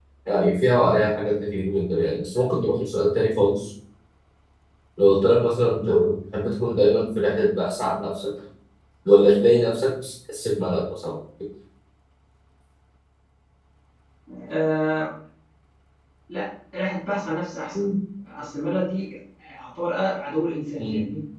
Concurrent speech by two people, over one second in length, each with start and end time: none

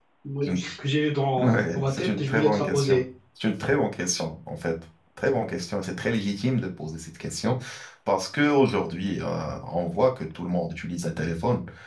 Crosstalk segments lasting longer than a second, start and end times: 1.4-3.0

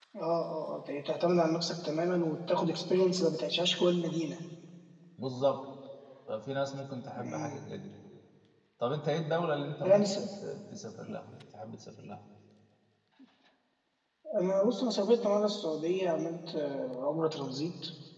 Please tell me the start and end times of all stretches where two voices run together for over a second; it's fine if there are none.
none

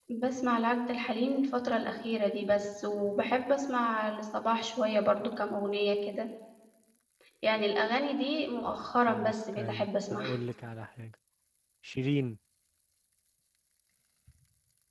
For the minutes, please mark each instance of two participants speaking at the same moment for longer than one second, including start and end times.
9.0-10.3

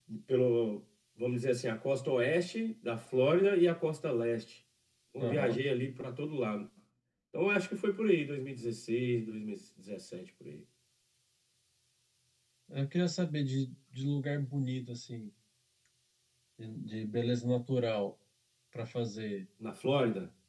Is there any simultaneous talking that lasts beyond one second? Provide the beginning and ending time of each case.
none

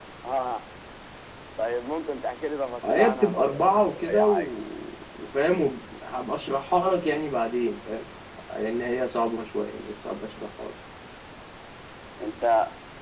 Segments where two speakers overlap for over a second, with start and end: 2.8-4.5

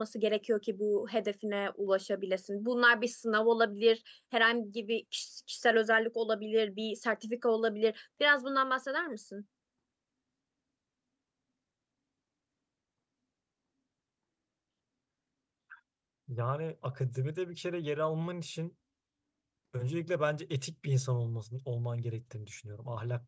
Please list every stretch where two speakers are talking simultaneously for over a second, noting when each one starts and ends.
none

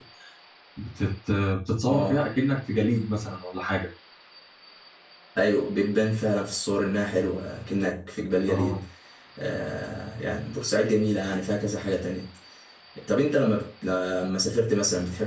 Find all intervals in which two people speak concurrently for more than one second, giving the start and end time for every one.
none

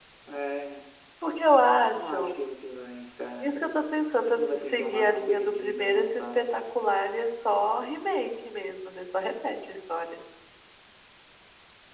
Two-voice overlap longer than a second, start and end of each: 4.4-6.4

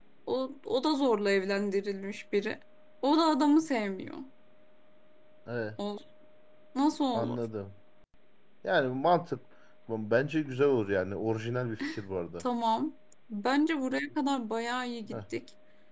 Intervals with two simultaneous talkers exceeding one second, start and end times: none

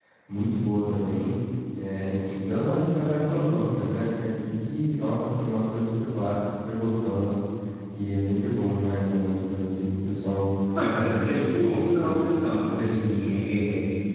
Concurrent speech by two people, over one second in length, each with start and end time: 10.8-12.2

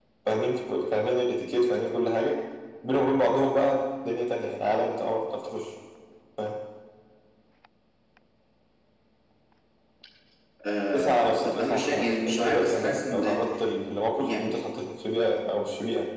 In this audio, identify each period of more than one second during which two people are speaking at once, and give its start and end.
10.9-13.4

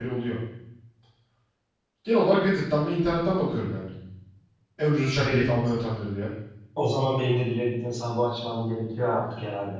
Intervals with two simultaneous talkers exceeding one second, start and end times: none

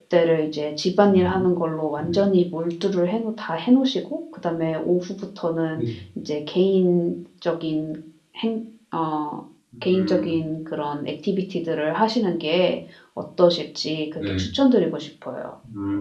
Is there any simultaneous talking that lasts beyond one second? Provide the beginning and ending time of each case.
none

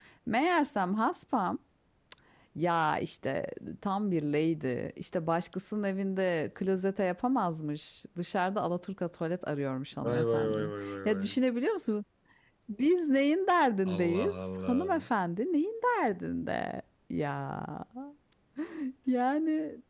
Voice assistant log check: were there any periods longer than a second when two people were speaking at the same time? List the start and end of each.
10.0-11.4, 13.8-15.0

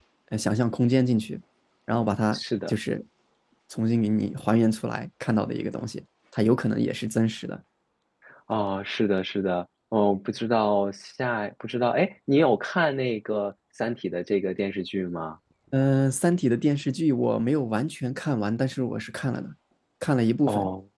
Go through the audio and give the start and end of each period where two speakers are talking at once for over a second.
none

